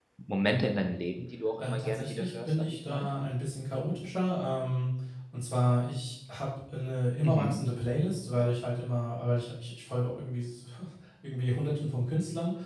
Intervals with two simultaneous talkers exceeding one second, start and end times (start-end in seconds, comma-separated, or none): 1.6-3.1